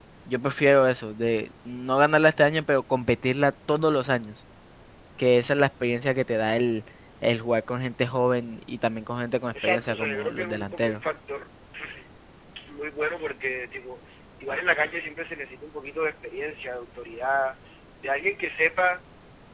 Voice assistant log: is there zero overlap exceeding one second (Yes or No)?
No